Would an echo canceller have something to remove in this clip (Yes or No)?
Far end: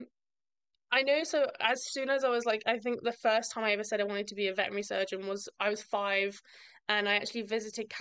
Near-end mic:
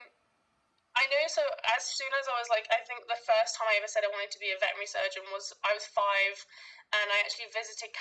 Yes